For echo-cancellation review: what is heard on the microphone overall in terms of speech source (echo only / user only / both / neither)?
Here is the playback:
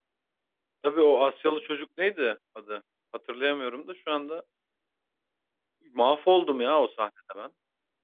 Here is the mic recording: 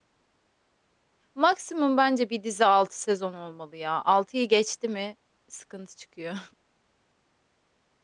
user only